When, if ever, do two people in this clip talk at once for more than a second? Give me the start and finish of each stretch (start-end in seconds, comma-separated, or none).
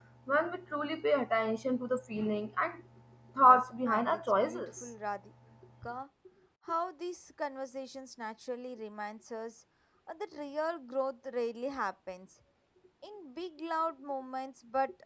3.4-4.9